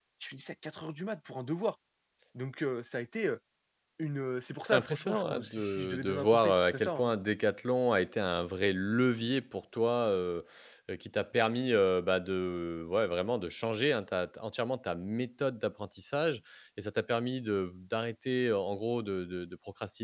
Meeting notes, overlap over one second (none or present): present